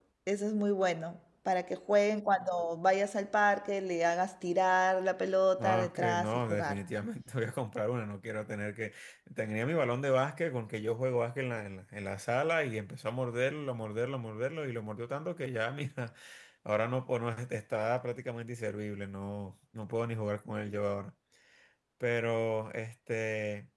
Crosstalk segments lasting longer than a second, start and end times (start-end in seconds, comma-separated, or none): 5.6-6.8